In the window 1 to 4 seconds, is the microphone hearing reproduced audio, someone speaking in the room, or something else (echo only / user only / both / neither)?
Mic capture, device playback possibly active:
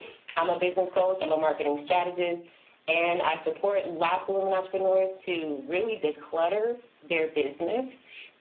echo only